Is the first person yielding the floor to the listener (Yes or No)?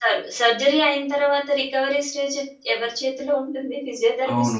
Yes